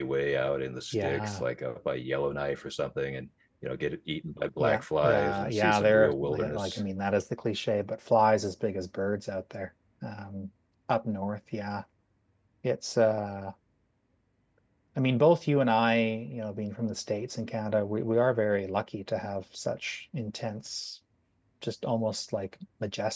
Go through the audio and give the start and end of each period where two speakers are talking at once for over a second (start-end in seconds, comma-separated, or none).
4.6-6.8